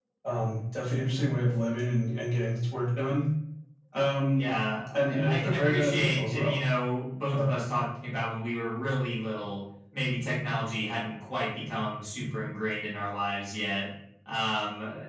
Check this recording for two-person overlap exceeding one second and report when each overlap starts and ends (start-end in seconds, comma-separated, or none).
4.9-6.6